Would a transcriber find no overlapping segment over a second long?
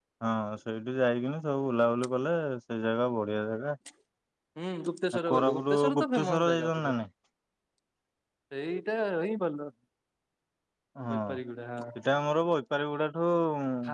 No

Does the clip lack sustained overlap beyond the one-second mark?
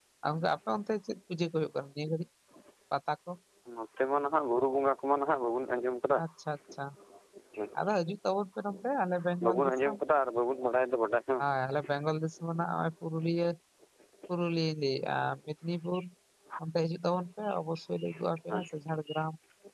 Yes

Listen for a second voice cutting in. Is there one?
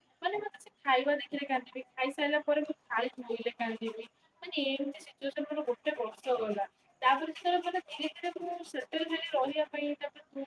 No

